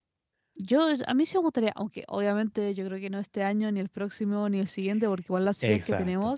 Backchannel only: Yes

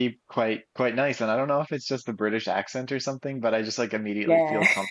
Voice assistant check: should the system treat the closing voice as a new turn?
No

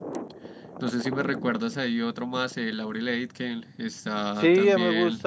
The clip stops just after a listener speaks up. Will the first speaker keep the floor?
No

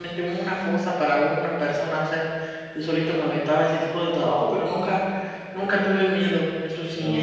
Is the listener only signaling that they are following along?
Yes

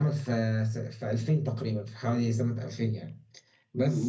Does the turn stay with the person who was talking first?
No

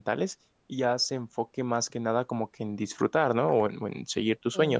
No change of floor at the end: No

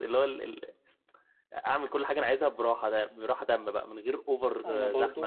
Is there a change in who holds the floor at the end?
Yes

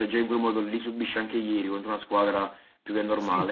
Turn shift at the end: Yes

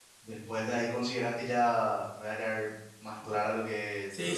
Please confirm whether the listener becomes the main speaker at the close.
Yes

